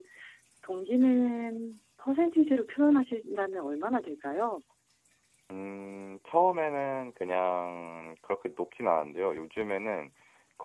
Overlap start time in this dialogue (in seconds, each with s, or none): none